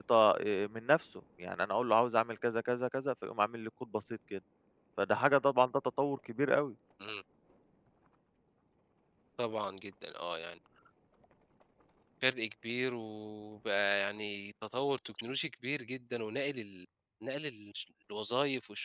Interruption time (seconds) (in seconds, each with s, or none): none